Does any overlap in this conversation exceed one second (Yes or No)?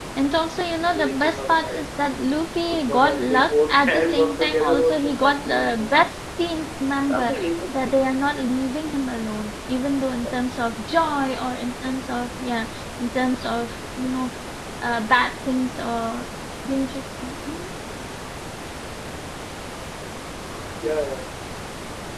Yes